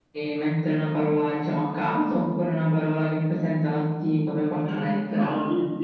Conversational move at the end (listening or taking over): taking over